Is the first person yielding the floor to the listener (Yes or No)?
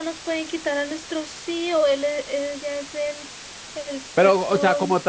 Yes